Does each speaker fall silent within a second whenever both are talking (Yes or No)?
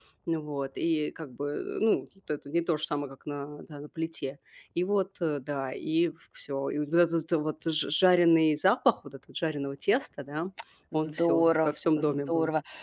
No